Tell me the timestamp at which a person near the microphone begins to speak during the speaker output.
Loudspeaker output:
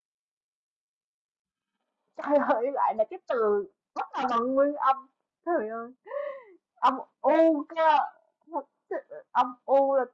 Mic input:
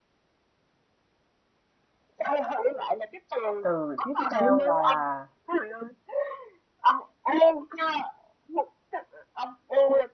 3.6 s

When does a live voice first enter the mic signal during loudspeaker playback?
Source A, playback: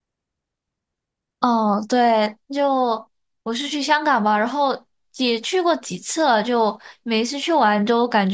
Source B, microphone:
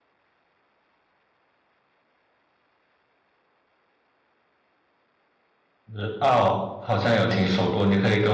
5.9 s

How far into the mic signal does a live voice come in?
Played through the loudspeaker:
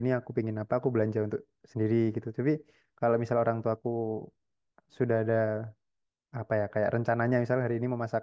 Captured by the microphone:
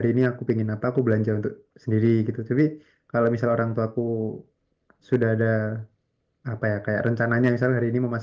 none

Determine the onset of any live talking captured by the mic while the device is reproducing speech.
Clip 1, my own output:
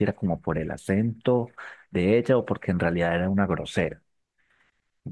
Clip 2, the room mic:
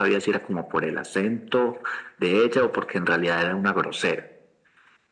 none

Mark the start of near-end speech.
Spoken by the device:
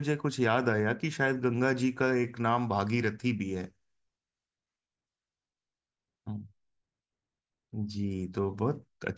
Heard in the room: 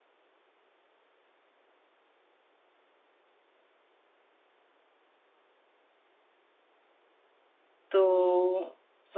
7.9 s

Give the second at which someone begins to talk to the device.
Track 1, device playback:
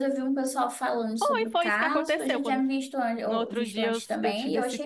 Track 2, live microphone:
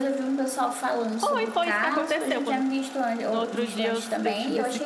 none

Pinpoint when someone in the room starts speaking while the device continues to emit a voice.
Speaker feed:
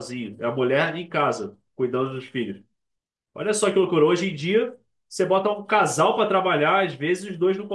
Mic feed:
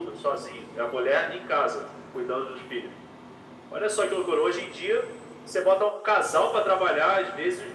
none

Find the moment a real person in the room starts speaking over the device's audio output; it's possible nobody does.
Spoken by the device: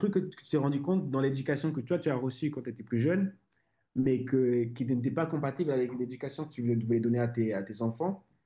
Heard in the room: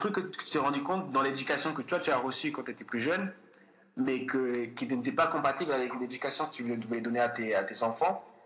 none

